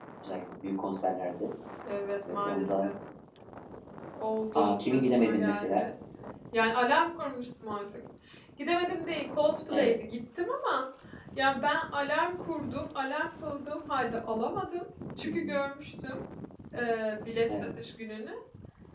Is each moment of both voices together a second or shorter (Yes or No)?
No